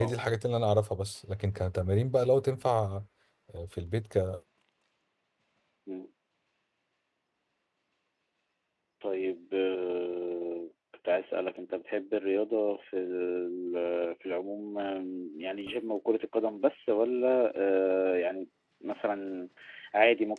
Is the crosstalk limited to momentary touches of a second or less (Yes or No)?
Yes